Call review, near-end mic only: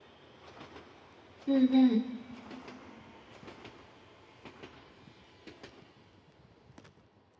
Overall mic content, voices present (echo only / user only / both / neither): user only